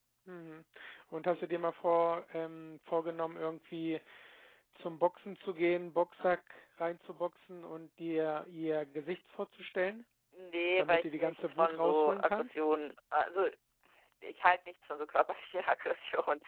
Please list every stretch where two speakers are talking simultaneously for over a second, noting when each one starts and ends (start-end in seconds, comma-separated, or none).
10.8-12.6